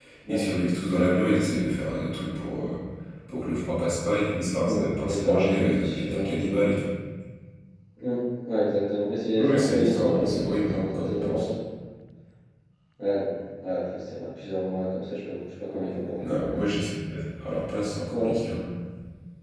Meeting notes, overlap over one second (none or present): present